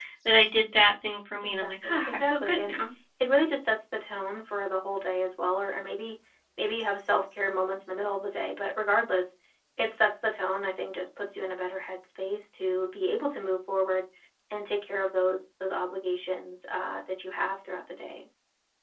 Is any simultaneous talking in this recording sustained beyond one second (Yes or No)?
Yes